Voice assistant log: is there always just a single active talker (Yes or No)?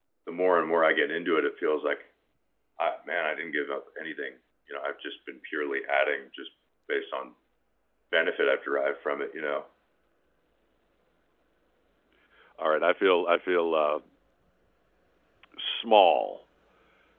Yes